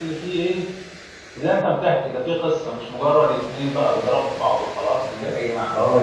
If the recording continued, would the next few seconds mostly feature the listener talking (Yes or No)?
Yes